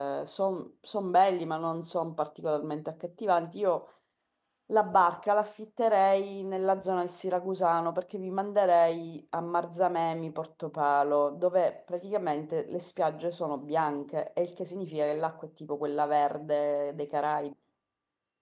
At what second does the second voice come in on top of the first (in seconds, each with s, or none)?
none